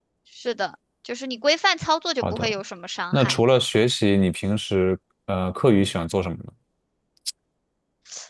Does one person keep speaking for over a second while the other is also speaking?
No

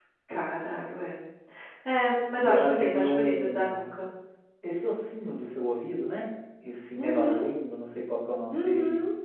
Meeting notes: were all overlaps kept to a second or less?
No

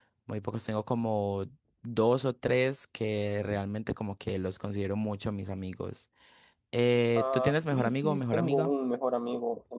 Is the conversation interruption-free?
No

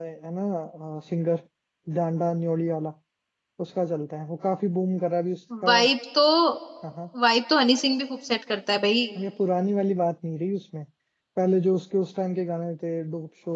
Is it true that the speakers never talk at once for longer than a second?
Yes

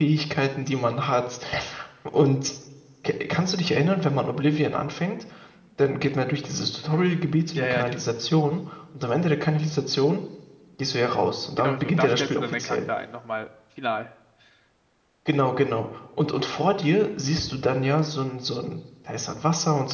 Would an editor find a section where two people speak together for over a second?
Yes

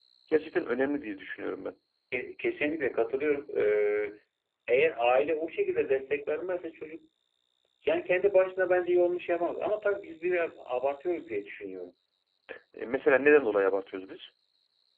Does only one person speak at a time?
Yes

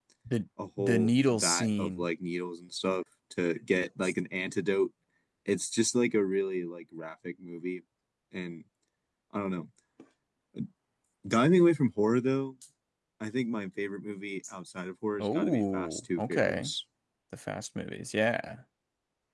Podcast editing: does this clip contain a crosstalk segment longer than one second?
Yes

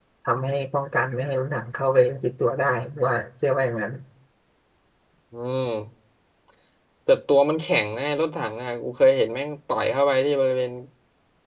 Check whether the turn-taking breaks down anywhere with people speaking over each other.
No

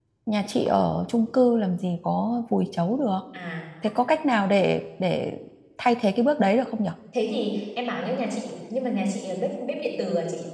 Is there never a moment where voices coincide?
Yes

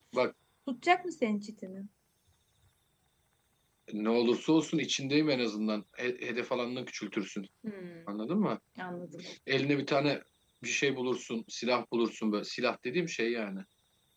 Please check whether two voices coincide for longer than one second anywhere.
No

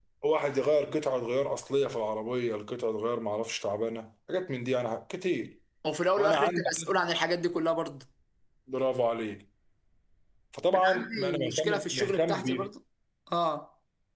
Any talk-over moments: Yes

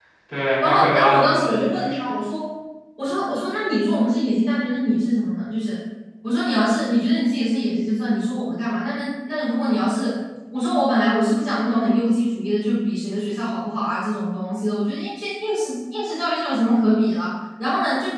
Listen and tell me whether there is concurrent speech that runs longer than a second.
Yes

